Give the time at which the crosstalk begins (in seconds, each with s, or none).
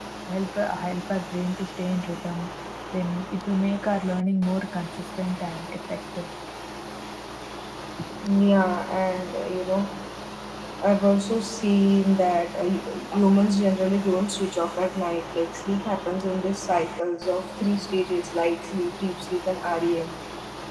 none